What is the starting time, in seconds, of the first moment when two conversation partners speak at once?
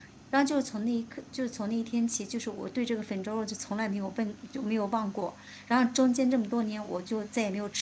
none

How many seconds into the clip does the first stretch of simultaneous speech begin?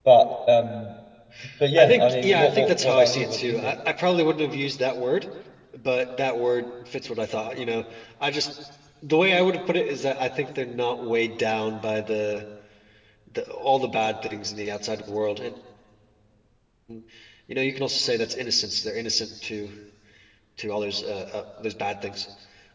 1.8 s

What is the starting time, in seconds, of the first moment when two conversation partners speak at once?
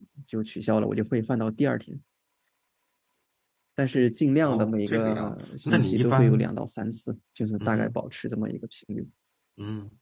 4.5 s

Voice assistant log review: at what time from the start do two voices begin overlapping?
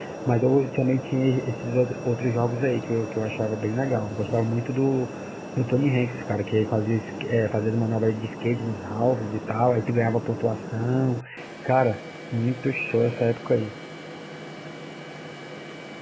none

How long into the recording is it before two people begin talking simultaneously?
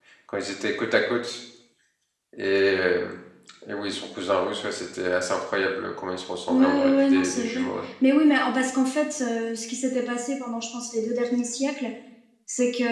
6.5 s

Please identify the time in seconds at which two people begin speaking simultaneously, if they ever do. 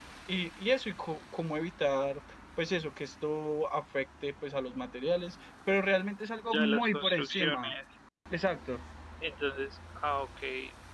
6.5 s

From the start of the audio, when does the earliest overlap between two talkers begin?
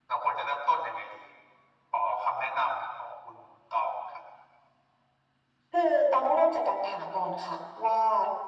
none

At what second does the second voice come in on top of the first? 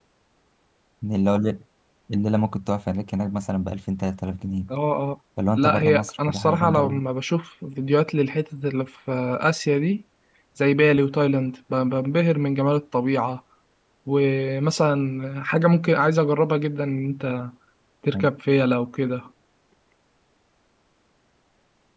5.5 s

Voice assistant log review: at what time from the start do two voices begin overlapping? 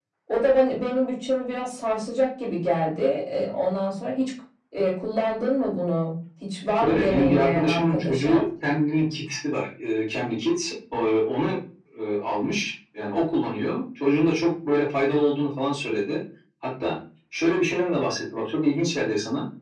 6.8 s

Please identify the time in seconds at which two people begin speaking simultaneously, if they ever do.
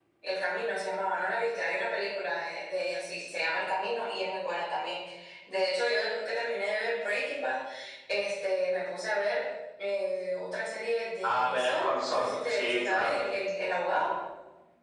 11.2 s

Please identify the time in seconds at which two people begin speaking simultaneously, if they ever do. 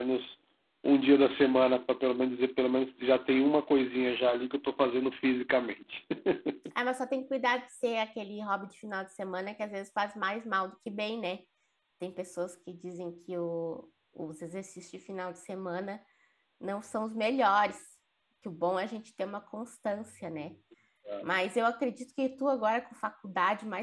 none

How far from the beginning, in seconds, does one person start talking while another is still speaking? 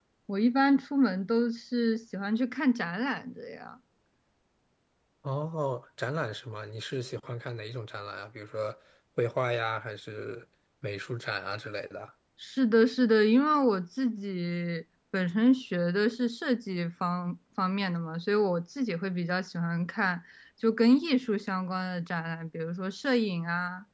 none

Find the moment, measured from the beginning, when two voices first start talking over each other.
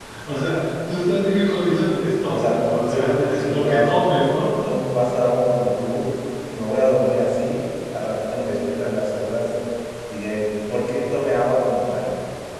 2.3 s

